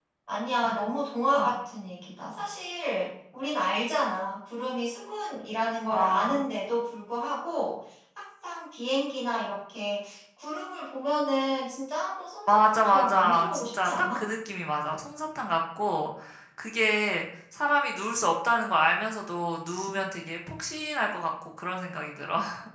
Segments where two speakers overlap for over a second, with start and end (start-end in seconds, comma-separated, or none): 12.5-14.2